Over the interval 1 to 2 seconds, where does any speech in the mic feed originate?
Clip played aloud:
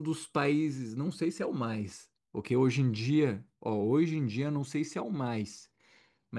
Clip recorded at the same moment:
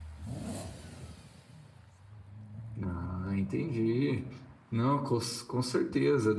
neither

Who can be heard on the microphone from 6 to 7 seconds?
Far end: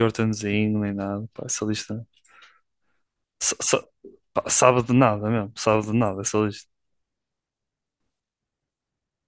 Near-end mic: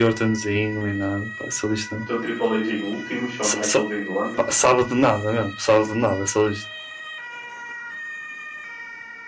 echo only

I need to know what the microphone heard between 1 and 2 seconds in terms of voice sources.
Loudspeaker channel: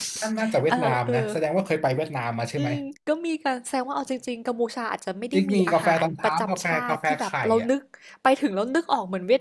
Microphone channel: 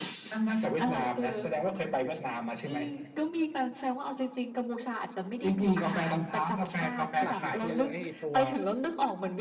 echo only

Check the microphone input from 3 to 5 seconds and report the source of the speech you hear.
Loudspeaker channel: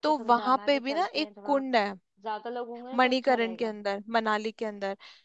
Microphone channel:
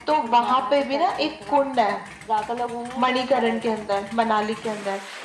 echo only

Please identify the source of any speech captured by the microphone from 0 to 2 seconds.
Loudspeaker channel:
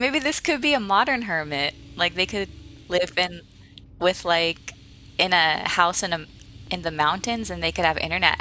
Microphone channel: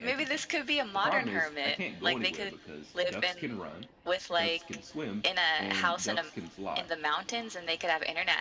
both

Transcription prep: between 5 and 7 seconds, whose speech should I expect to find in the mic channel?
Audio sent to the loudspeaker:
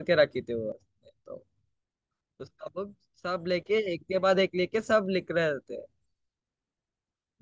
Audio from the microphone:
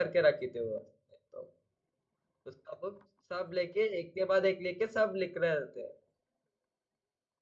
echo only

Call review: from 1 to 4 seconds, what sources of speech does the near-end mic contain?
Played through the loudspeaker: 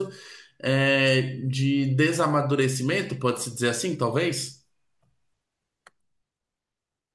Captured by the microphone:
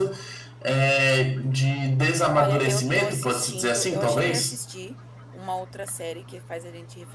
both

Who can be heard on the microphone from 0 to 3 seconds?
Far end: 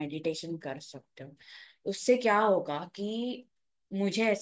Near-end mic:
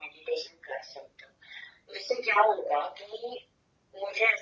echo only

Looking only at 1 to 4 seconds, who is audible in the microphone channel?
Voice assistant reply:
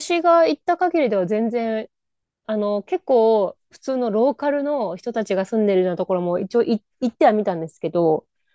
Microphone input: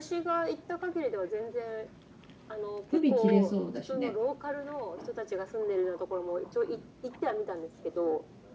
both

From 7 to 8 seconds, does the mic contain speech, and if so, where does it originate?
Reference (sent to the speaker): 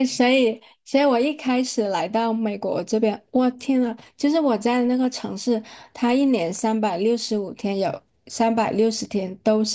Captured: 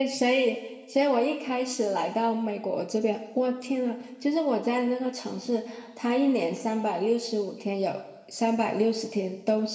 echo only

